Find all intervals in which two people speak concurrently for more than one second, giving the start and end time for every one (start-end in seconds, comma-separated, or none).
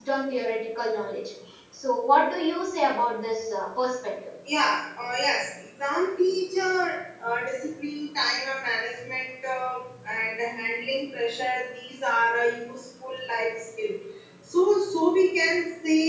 none